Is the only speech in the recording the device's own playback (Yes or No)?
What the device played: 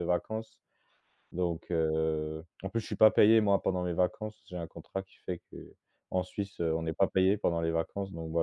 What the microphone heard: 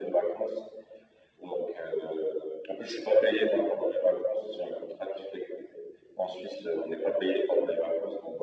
Yes